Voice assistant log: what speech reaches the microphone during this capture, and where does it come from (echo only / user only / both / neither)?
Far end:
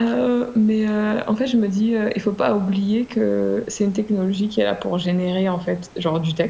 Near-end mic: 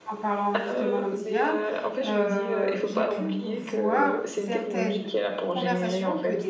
both